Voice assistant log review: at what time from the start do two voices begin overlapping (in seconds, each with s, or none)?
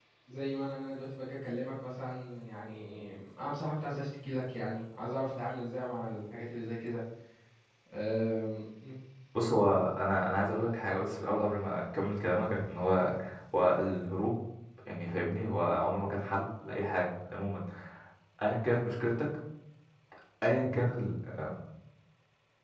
none